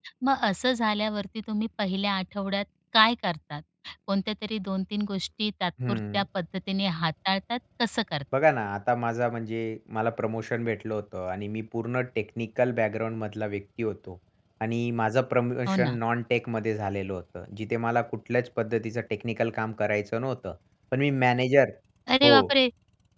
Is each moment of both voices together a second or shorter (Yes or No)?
Yes